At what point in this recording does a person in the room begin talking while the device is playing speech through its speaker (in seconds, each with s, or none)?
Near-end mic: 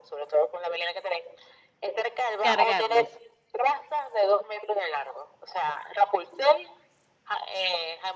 2.4 s